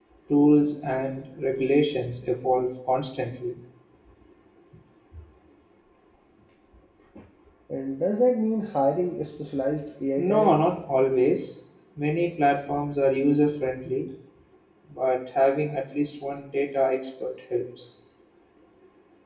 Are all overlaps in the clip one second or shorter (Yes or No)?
Yes